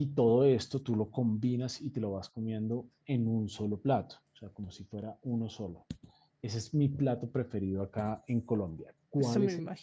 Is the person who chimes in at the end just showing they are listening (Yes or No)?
No